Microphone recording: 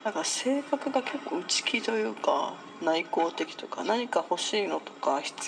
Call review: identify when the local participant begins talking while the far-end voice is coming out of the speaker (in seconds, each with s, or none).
none